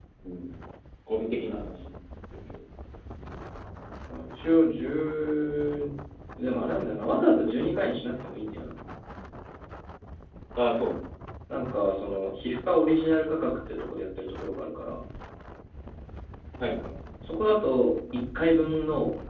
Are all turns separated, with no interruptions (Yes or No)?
Yes